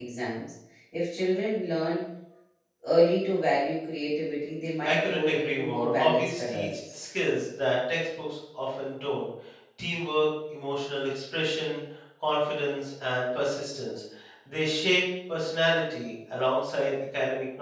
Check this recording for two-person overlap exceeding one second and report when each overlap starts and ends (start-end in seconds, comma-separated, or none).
4.8-7.0